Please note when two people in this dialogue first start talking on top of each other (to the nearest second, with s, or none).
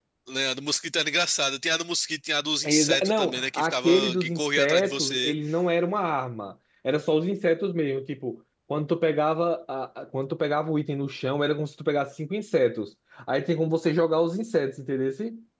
3 s